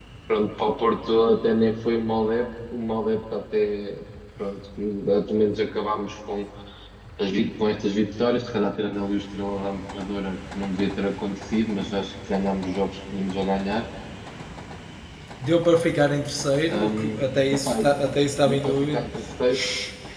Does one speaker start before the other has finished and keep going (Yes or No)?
Yes